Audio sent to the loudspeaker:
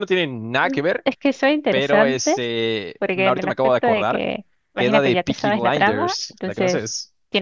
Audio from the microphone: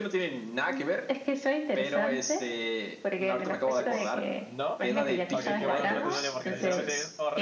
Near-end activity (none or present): present